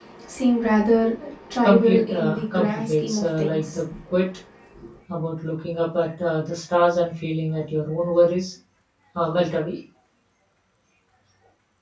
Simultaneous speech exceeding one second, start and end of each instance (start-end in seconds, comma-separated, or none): 1.6-3.8